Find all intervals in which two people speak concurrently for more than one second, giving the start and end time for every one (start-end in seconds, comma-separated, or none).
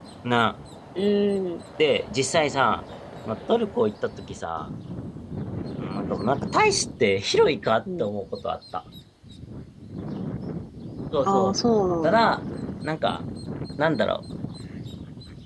none